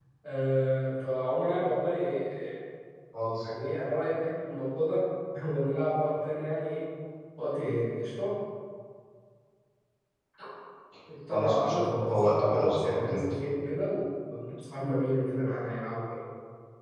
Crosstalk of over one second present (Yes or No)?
Yes